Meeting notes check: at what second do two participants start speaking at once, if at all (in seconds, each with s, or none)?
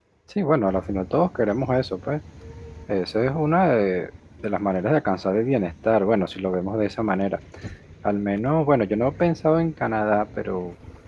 none